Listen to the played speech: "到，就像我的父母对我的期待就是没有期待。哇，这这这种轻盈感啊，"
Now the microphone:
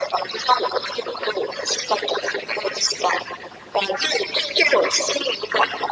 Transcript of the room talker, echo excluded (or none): none